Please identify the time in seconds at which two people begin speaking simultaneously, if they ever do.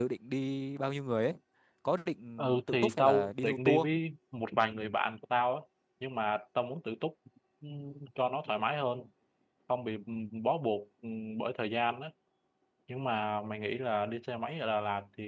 2.4 s

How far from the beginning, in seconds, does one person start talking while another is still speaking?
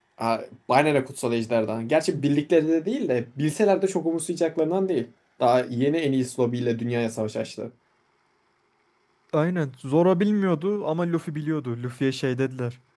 none

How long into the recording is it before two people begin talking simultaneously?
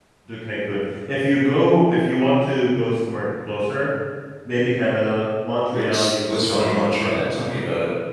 5.7 s

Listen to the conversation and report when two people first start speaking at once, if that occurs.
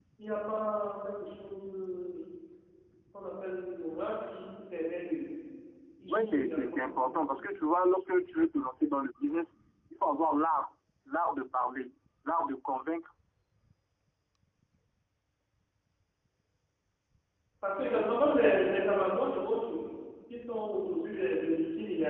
6.1 s

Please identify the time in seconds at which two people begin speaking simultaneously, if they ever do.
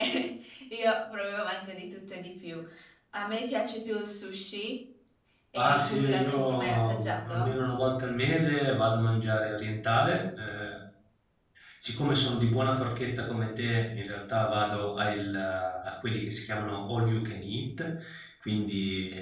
5.5 s

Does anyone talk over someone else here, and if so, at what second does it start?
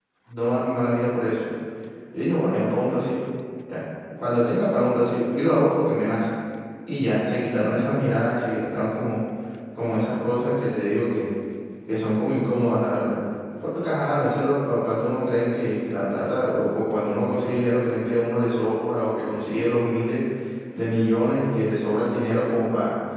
none

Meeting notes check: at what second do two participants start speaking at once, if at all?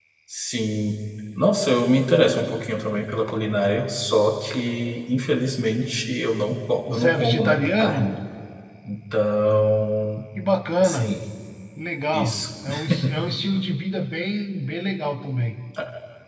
6.9 s

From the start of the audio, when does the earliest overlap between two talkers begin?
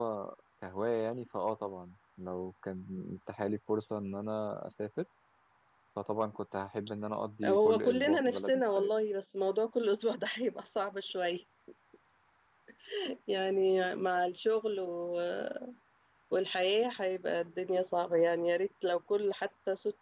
7.4 s

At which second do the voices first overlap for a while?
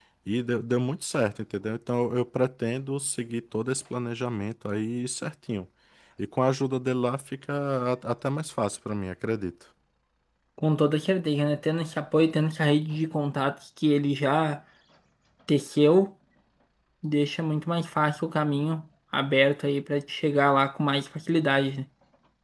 none

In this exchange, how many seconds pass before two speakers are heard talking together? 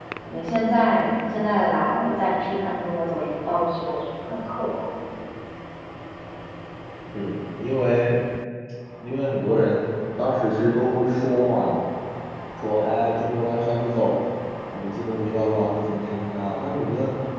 none

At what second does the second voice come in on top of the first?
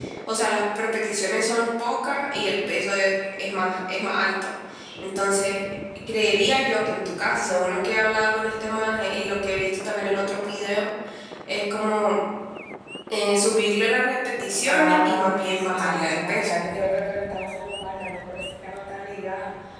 14.7 s

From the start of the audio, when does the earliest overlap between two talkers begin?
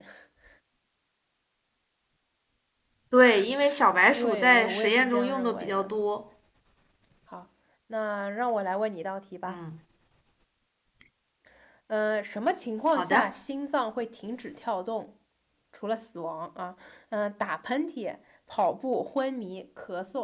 4.1 s

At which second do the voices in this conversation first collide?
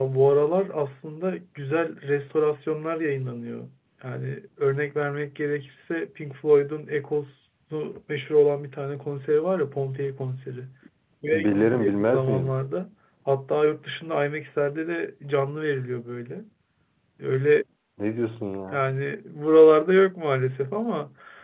11.3 s

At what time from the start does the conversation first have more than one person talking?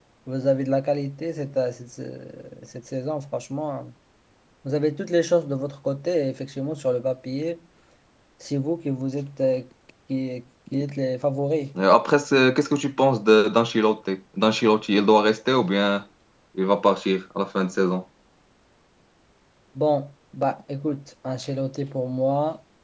none

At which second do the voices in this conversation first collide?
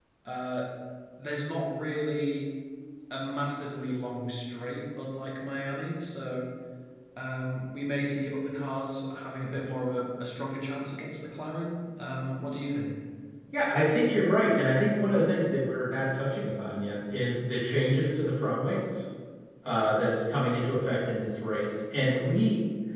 none

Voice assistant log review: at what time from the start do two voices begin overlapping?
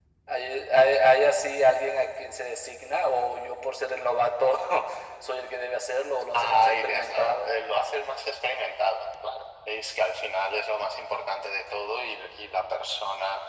6.3 s

